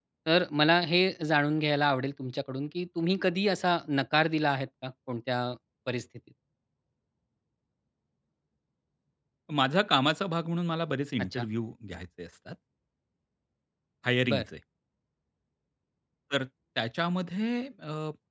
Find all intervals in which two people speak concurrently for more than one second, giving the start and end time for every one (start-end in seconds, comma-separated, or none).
none